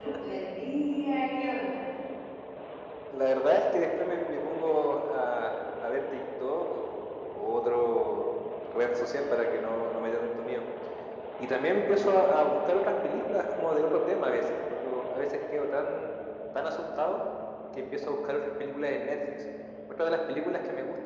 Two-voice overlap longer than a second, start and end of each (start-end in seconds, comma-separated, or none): none